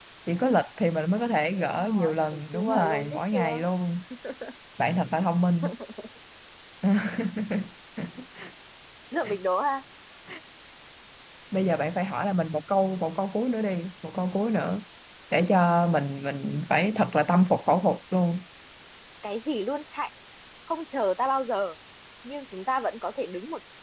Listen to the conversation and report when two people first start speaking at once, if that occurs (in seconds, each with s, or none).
1.6 s